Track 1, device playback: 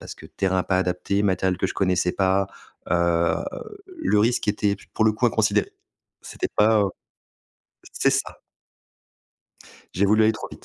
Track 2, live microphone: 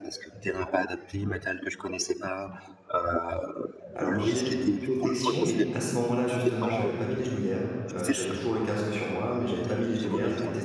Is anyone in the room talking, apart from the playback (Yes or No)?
Yes